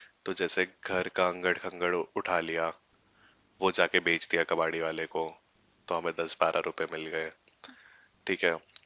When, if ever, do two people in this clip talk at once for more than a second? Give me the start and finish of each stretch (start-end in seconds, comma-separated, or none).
none